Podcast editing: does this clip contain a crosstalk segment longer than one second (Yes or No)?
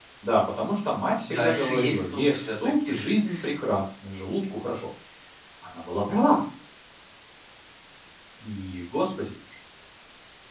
Yes